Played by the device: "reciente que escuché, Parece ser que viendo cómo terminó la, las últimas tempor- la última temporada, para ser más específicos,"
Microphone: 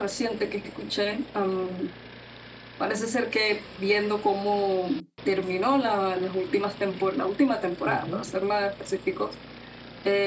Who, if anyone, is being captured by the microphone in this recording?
both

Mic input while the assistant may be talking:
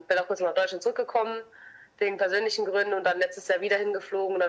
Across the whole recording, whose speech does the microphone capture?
echo only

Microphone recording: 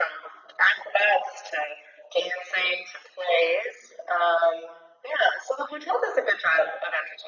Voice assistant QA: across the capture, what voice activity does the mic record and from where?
echo only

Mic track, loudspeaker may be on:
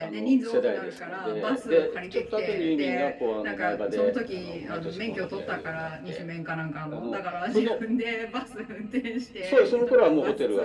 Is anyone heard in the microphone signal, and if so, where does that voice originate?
both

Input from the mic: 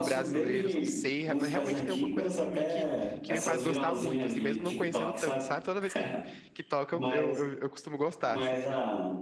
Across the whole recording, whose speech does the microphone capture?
both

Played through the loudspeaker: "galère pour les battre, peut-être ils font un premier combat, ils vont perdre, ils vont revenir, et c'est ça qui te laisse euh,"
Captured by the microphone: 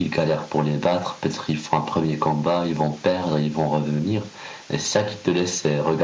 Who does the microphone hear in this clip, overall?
echo only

